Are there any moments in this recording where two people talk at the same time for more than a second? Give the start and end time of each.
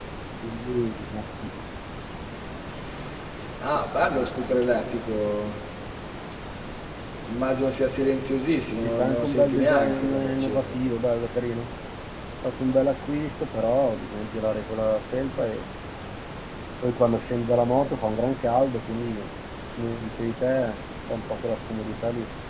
8.8-10.8

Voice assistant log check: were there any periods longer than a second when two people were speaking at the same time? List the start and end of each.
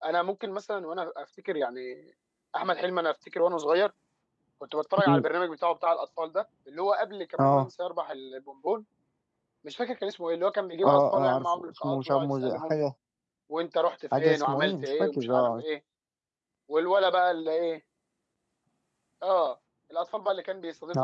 10.8-12.7, 14.2-15.6

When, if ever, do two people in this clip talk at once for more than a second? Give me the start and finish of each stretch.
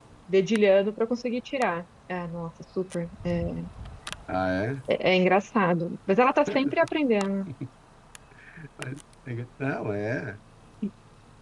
none

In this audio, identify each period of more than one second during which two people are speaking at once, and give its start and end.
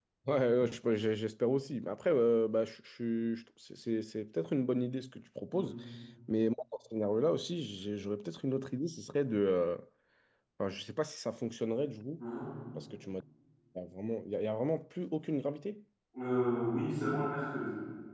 none

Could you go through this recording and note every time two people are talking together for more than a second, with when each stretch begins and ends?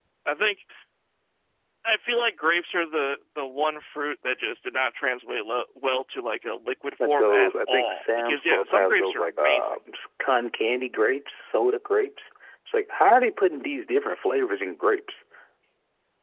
7.0-9.8

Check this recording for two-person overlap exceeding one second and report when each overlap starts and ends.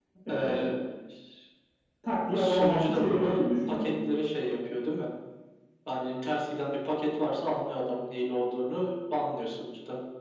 2.3-3.9

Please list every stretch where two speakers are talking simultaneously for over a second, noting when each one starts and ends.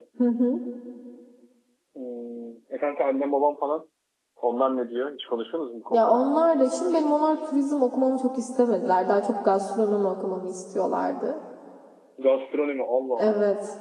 none

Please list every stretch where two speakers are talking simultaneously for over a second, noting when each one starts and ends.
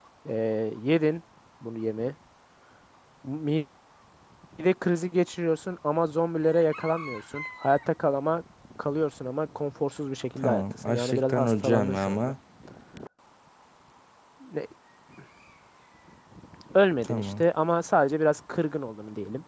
10.4-12.3

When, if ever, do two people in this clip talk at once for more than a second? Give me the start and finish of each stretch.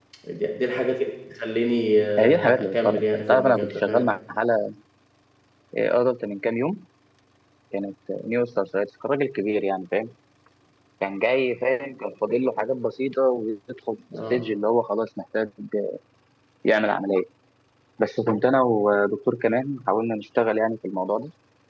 2.2-4.1

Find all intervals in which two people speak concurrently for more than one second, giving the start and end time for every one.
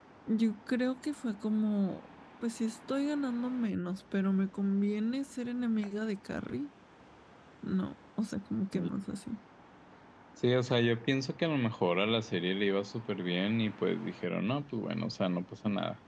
none

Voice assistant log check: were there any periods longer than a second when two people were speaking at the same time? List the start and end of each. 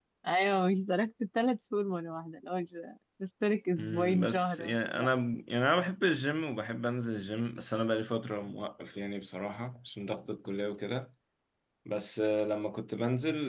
3.8-5.1

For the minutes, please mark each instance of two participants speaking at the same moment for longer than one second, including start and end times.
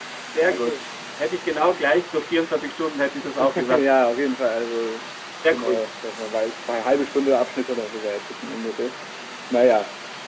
none

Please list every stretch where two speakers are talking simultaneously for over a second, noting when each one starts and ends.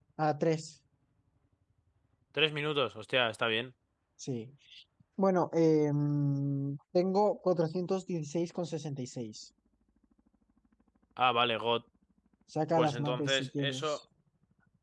12.8-14.0

